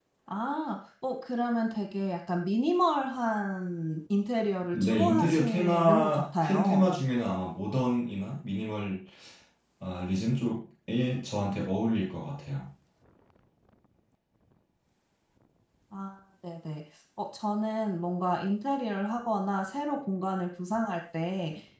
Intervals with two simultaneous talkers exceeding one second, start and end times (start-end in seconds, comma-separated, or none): 4.7-6.9